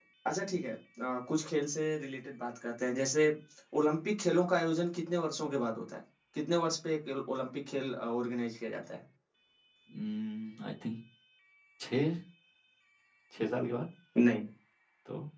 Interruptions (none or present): none